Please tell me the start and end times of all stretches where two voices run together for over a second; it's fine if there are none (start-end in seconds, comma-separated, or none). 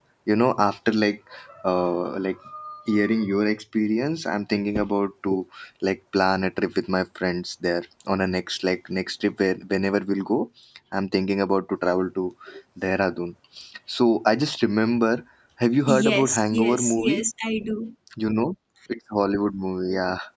16.0-17.2